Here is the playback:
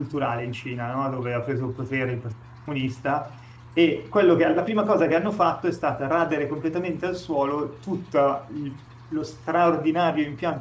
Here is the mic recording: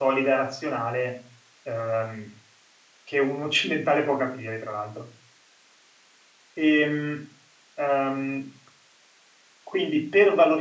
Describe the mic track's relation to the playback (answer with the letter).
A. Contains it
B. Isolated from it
B